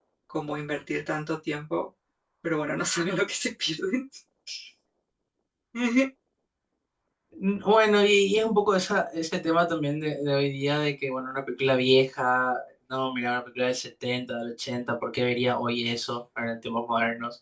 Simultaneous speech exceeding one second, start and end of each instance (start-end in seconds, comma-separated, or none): none